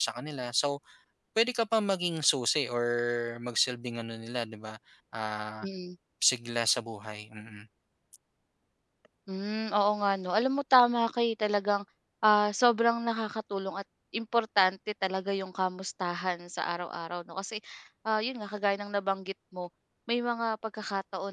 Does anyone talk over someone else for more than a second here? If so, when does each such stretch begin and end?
none

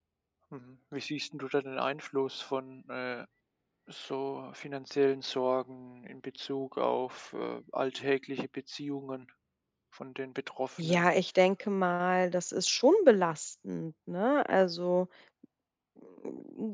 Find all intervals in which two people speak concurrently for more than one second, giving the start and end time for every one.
none

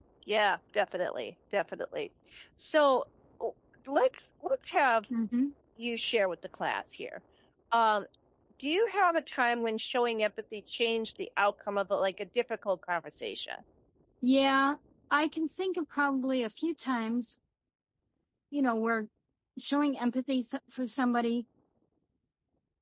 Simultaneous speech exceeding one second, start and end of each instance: none

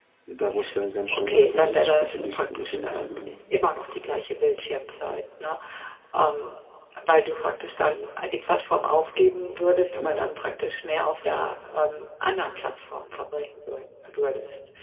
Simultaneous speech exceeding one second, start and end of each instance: 1.1-3.1

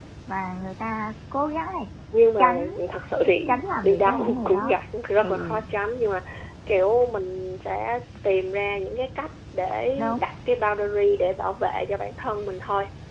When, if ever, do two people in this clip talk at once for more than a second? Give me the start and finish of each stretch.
3.5-4.8

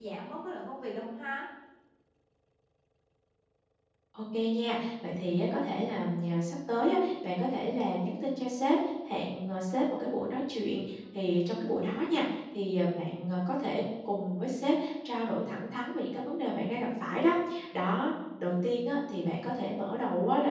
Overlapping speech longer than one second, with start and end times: none

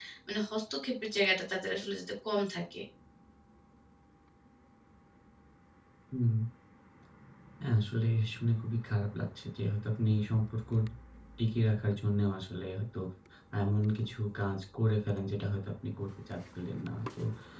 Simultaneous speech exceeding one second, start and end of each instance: none

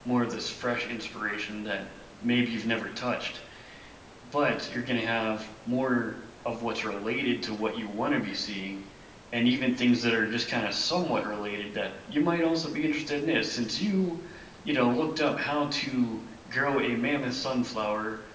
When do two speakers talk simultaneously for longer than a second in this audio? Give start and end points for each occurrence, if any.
none

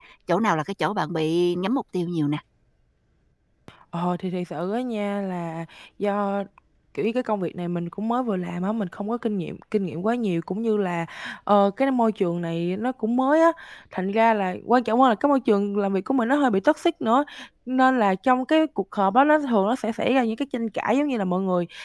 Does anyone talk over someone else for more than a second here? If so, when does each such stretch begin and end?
none

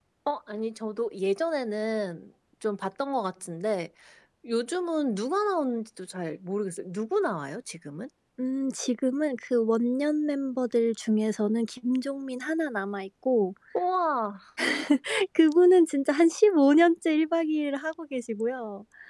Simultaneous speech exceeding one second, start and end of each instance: none

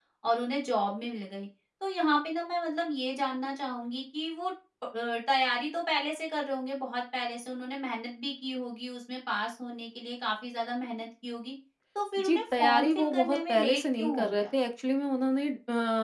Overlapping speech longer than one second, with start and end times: 12.2-14.4

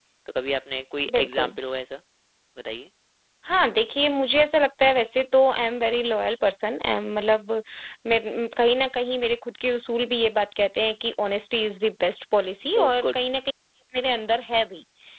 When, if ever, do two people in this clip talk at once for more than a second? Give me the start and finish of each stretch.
none

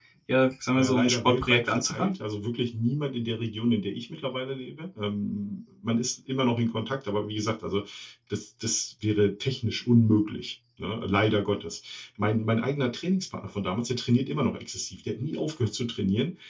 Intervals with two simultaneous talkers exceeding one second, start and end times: 0.8-2.1

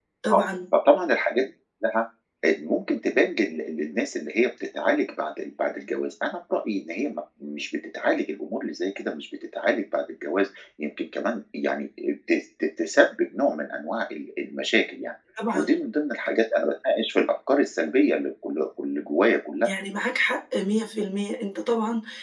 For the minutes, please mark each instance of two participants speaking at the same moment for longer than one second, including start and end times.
none

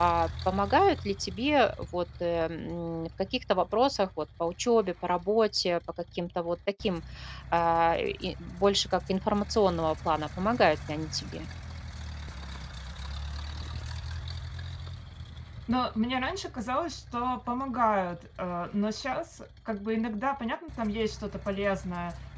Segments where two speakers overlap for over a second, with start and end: none

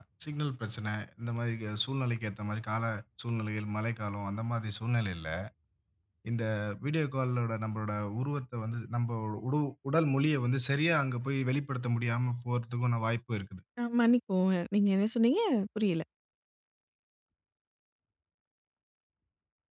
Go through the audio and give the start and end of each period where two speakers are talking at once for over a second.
none

